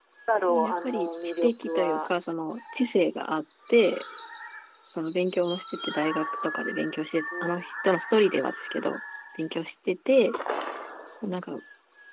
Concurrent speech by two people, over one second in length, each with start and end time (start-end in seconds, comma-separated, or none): 0.6-2.1